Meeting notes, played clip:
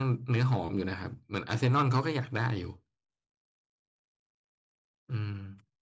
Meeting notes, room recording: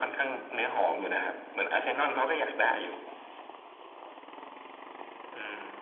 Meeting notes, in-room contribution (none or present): none